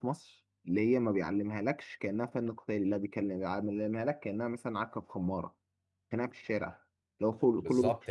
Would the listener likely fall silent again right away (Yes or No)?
No